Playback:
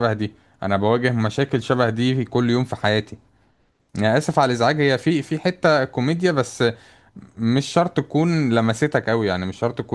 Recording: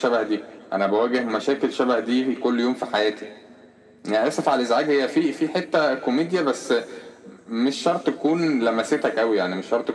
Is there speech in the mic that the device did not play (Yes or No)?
No